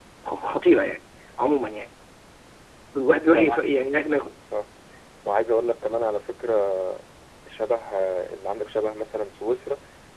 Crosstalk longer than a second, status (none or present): none